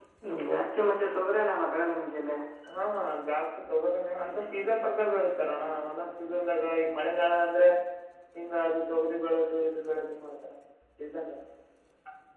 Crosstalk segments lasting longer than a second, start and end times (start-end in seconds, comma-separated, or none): none